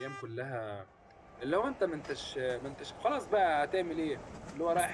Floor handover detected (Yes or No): Yes